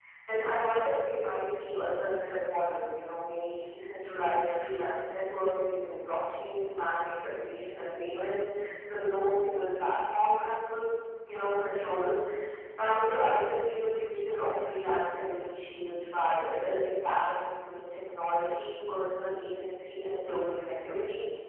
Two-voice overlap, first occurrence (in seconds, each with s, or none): none